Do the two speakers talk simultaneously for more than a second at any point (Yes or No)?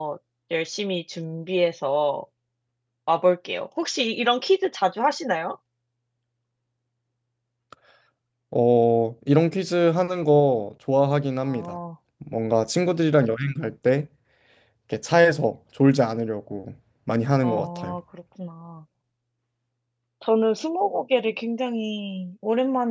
No